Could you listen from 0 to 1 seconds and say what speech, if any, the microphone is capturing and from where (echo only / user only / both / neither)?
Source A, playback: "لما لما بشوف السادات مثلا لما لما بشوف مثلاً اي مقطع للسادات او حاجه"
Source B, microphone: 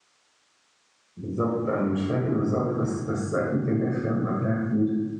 neither